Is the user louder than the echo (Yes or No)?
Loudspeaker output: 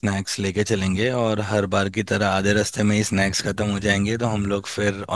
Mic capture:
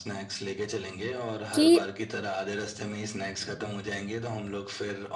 Yes